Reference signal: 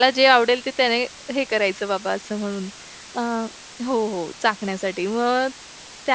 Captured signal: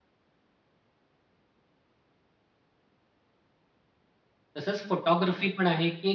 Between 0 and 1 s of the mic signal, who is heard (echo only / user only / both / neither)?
neither